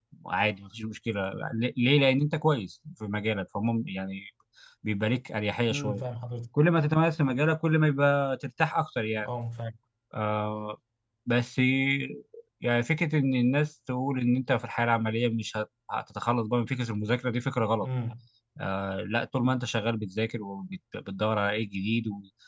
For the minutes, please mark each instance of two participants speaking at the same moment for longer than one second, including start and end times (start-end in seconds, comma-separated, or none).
none